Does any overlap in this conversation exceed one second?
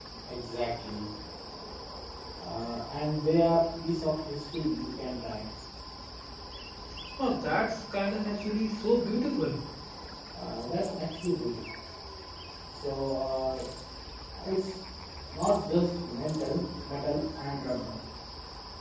No

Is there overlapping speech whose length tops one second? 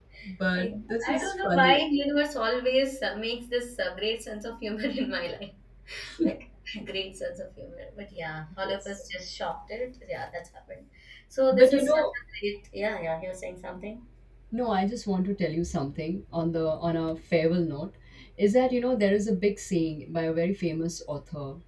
Yes, from 0.5 s

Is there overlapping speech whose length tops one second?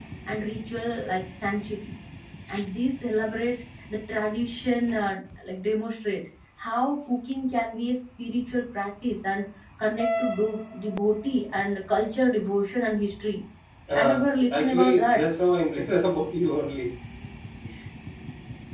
Yes, from 14.0 s

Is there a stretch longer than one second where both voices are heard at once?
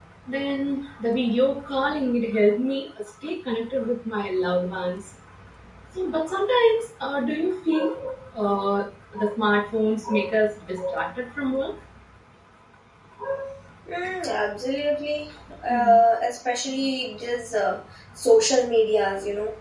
No

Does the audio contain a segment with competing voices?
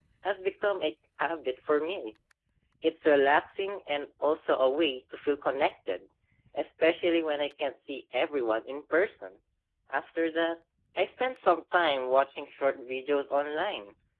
No

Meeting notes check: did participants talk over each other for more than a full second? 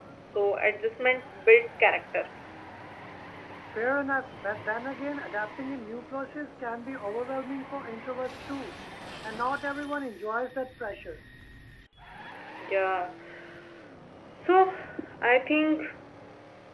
No

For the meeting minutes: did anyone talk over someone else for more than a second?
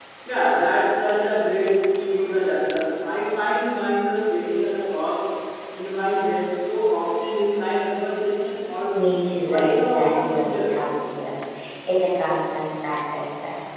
Yes, from 9.4 s

